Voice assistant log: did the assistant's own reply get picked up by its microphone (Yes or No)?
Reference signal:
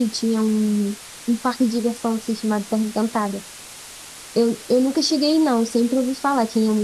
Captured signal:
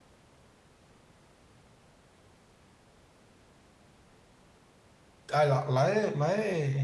No